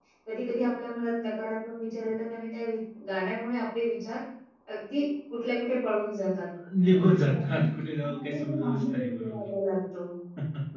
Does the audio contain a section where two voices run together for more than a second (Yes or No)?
Yes